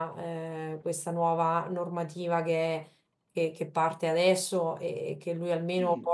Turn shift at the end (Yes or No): No